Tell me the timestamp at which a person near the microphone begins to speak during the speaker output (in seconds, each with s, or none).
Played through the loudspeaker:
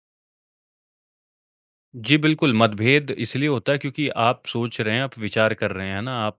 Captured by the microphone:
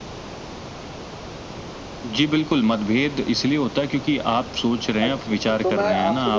4.7 s